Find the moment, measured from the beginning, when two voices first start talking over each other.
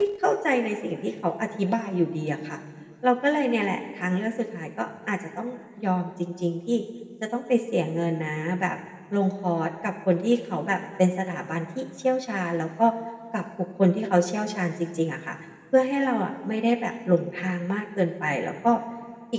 none

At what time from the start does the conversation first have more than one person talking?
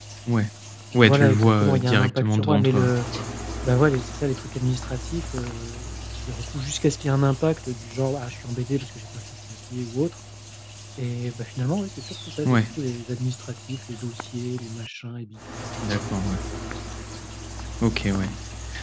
0.9 s

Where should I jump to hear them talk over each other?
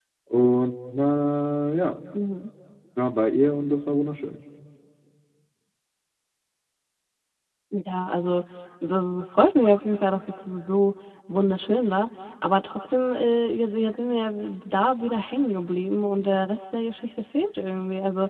none

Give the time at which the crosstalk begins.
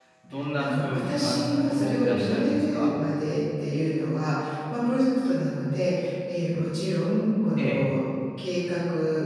0.6 s

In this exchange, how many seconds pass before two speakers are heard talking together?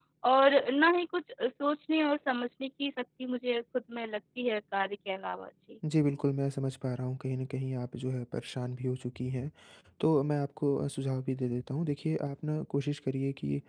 none

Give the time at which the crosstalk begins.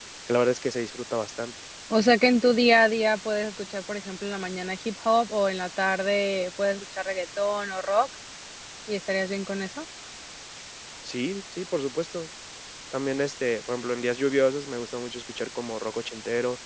none

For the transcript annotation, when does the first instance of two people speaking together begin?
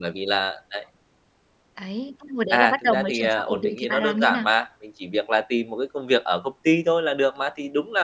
2.5 s

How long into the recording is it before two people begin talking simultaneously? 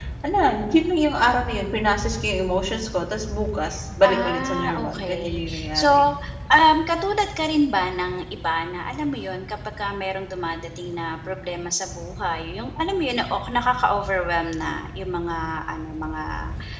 4.0 s

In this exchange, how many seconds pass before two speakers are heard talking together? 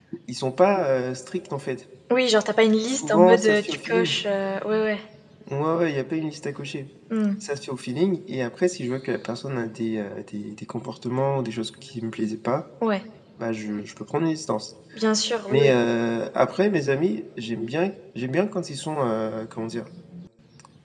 2.9 s

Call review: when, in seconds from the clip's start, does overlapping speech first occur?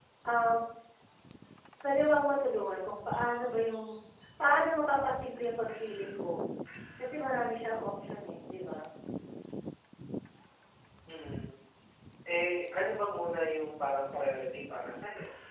none

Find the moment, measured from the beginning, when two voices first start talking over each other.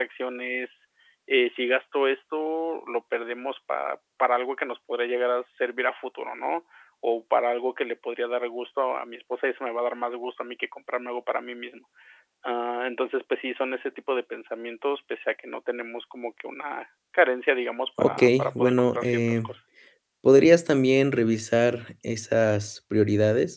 18.0 s

